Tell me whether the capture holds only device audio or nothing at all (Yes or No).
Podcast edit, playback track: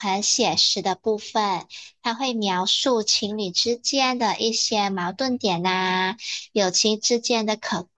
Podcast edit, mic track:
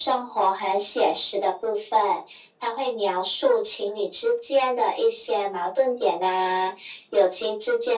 Yes